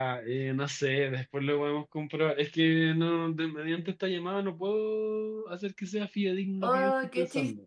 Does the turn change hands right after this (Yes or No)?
Yes